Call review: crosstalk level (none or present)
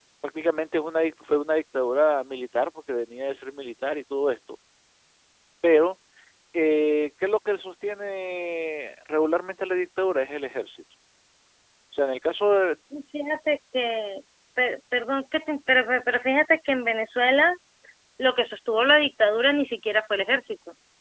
none